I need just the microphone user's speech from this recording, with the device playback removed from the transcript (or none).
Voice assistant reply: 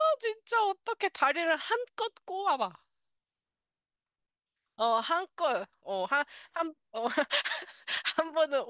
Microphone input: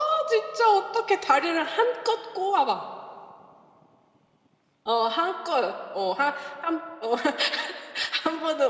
none